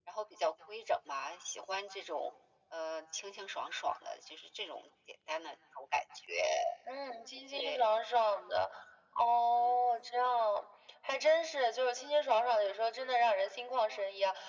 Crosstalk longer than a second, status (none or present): none